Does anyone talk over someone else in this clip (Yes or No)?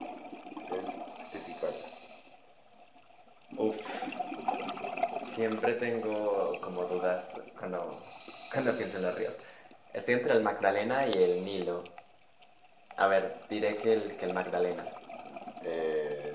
No